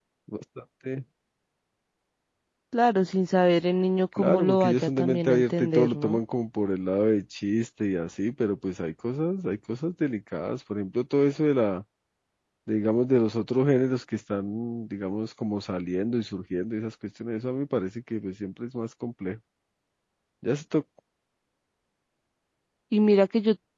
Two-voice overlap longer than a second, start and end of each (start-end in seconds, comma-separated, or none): 4.2-6.2